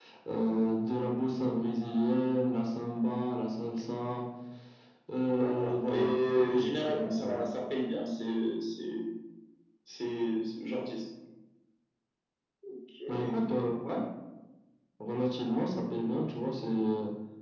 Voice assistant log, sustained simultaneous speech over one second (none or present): present